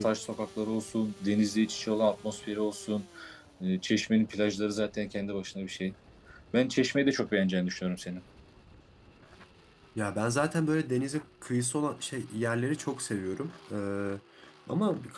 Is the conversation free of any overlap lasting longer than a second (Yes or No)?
Yes